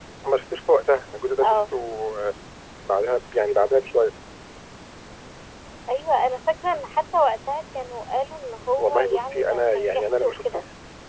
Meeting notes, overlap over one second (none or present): present